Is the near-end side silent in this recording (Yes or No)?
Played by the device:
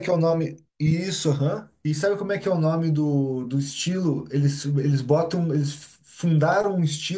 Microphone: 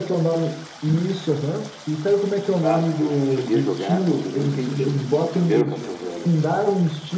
No